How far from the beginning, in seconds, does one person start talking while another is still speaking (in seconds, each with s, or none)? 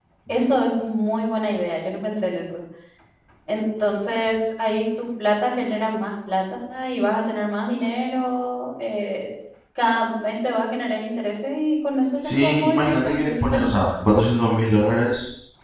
12.2 s